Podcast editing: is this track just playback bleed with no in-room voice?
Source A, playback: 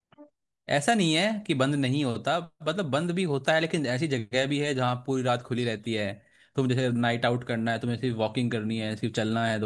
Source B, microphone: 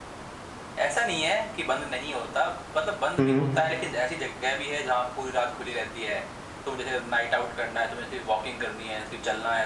No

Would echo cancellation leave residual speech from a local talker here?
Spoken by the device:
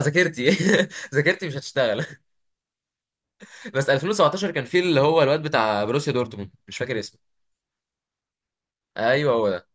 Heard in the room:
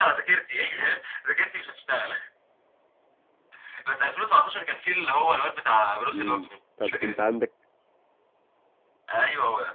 Yes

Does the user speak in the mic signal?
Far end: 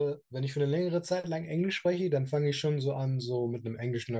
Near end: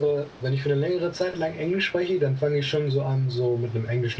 No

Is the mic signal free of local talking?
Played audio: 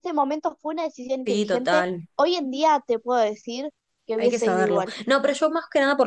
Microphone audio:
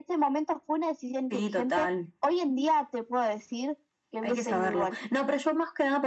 Yes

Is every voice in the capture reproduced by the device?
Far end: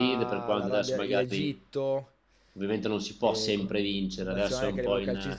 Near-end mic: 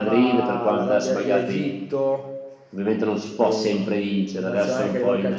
Yes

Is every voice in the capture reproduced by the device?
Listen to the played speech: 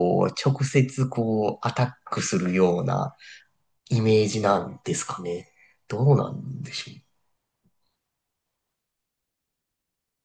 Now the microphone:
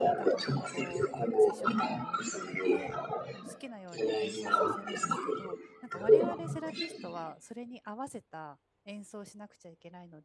No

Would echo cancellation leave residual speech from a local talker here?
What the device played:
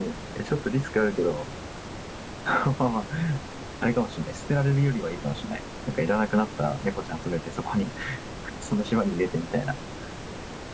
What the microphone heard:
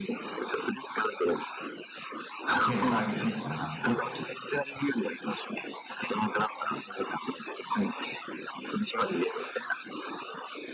Yes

